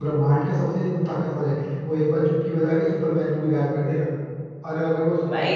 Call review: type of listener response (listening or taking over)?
listening